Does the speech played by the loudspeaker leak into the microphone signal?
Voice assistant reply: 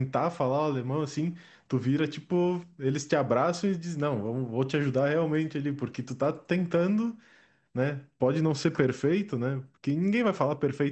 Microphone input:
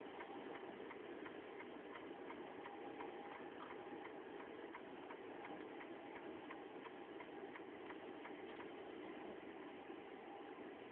No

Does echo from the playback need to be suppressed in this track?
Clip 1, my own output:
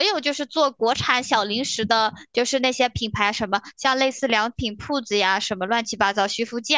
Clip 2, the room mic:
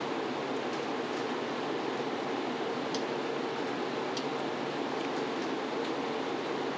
No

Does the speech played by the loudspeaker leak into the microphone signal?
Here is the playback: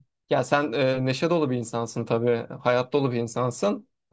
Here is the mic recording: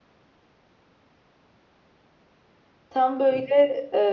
No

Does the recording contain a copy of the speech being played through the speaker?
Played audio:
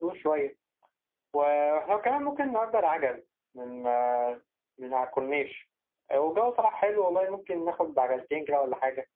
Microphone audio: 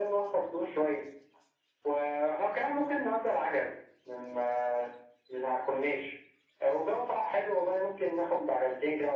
Yes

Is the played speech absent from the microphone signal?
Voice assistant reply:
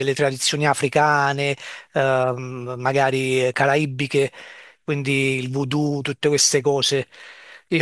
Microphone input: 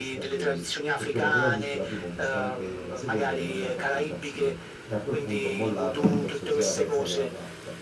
No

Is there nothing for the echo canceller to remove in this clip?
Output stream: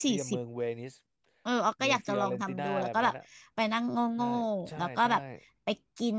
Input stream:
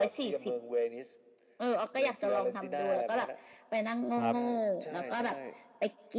No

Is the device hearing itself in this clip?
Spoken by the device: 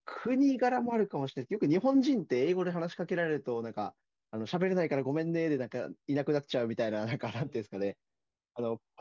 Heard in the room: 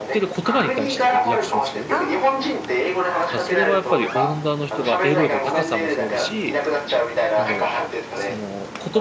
Yes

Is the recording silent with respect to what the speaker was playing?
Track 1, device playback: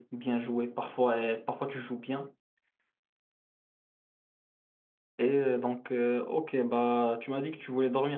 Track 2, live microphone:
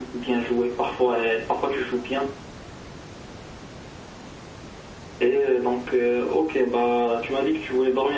No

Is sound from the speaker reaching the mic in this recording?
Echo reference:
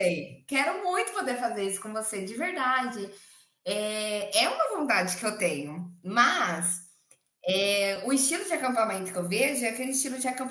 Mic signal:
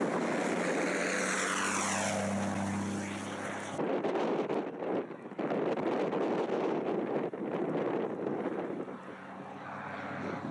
No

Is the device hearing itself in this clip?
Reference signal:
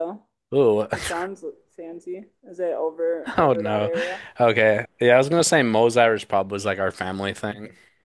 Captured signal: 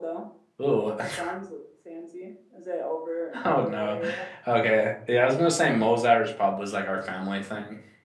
Yes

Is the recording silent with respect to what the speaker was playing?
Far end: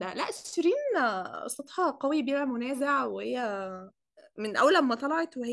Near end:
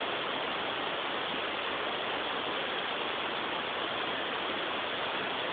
Yes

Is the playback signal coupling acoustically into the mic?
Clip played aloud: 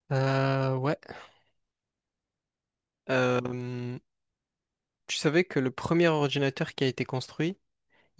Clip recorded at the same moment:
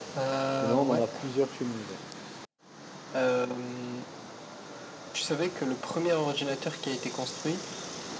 Yes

